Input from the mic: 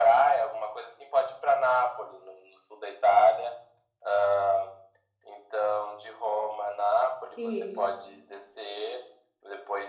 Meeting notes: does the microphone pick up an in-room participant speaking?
Yes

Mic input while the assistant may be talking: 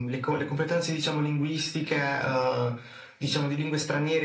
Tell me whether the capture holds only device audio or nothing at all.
Yes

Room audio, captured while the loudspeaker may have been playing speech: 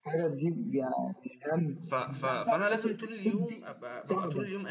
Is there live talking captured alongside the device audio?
Yes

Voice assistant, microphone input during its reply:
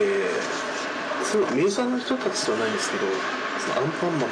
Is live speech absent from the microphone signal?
Yes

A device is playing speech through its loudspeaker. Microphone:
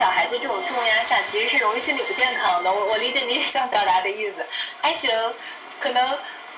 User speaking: No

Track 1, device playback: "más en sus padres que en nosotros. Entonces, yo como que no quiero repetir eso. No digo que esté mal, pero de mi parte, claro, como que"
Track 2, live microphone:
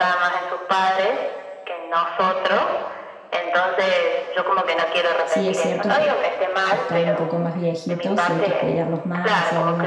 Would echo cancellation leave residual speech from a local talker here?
Yes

